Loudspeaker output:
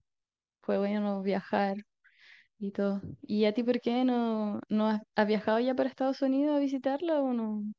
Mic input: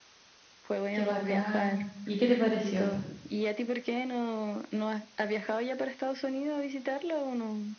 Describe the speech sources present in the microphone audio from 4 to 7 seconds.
echo only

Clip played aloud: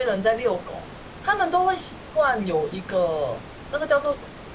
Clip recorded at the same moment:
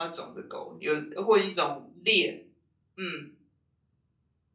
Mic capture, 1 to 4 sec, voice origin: user only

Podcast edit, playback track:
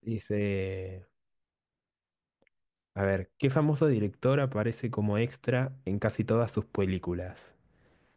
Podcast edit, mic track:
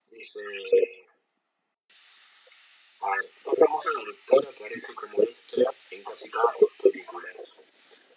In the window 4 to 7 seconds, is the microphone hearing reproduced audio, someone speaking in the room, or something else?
echo only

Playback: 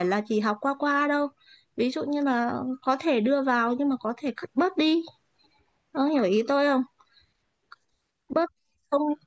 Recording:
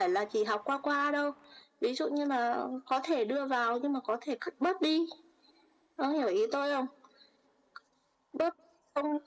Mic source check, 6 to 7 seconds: echo only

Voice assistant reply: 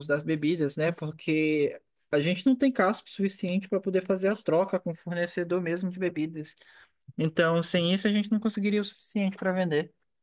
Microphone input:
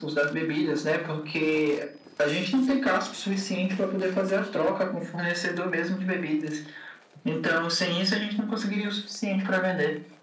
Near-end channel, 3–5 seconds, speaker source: echo only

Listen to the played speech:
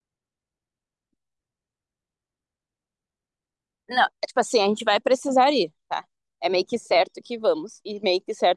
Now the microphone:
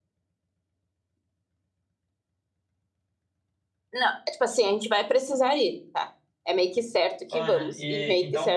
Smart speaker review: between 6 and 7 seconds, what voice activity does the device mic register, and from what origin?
echo only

